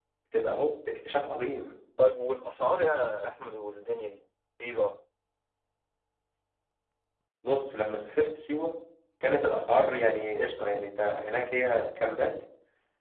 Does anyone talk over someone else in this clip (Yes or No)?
No